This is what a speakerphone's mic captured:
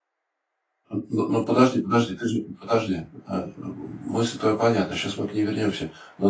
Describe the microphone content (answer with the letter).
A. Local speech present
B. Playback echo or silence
A